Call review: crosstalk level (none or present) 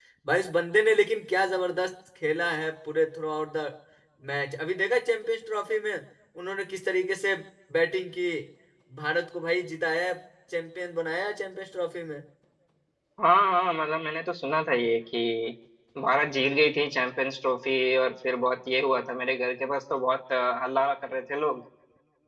none